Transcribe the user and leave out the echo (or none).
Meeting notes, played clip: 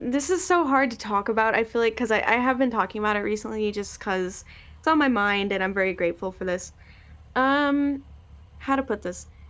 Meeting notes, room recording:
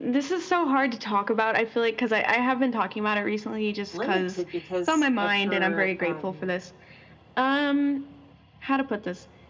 limited because of her um,